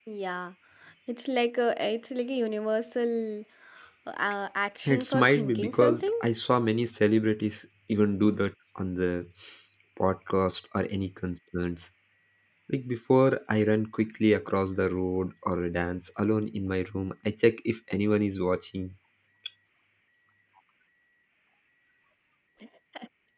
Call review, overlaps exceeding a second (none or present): present